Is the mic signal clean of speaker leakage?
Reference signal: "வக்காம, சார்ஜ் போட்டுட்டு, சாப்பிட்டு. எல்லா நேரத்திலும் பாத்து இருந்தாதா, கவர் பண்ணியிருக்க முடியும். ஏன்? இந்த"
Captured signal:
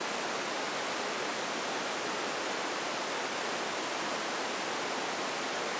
Yes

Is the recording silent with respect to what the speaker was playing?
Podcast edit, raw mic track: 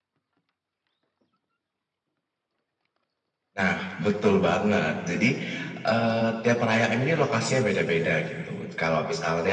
No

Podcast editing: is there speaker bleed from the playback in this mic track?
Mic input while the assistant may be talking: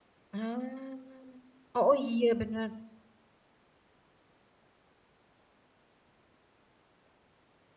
No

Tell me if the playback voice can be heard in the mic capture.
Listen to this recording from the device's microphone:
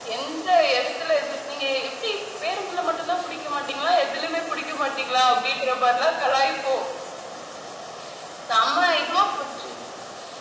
Yes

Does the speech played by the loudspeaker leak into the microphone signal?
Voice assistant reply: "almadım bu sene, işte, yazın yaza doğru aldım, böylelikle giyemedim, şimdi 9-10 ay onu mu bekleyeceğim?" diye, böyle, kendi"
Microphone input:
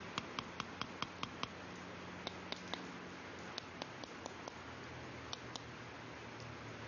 No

